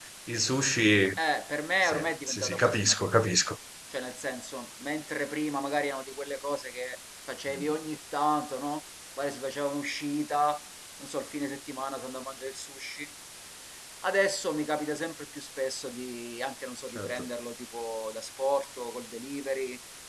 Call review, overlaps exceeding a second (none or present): present